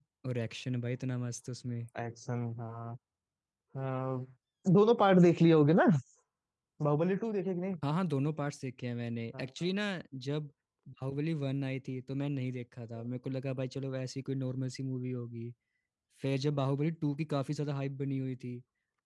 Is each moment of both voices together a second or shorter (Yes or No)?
Yes